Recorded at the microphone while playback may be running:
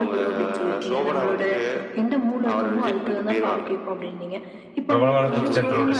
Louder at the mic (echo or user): user